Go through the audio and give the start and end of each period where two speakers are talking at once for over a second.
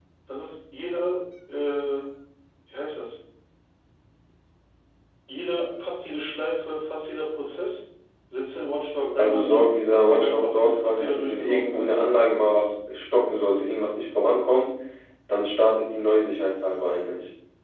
9.2-11.9

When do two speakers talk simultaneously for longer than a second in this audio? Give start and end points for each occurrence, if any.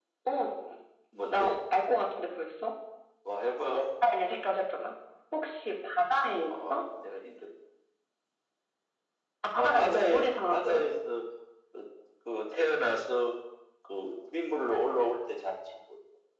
9.6-10.9

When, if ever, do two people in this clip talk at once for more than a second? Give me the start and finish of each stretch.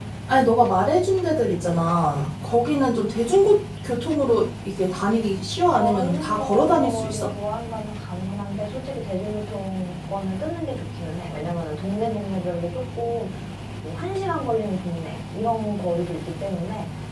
5.7-7.3

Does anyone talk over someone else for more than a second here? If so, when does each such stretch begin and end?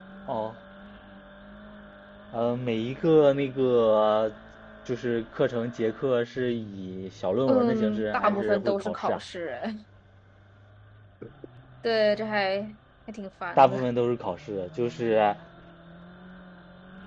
7.5-9.2

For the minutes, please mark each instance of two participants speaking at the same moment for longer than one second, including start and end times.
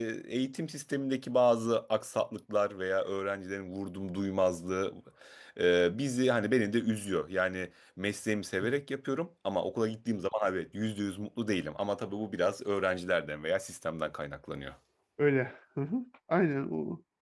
none

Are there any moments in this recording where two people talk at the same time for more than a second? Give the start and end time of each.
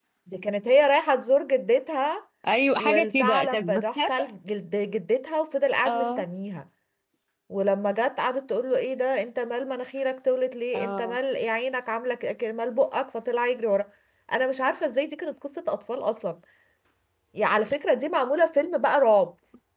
2.8-4.1

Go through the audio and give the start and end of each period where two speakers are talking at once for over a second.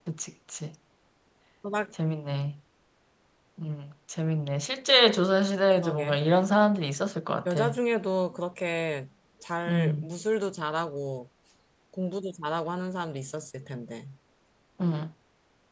none

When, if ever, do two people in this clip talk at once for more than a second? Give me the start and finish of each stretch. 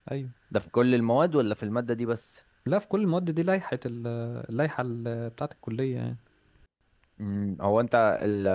none

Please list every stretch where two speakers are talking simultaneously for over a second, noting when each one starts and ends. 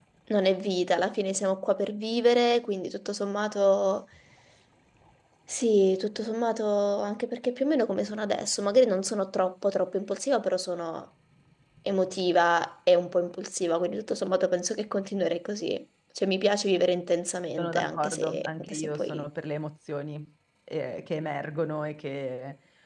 17.6-19.2

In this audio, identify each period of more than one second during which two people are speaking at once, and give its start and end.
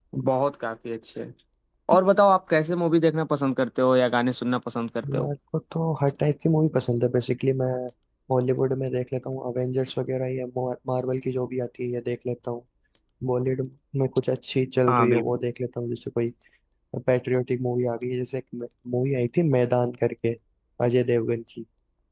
none

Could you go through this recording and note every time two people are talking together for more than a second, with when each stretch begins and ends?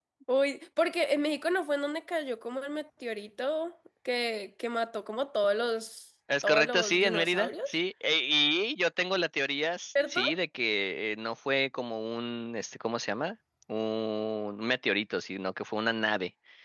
6.4-7.7

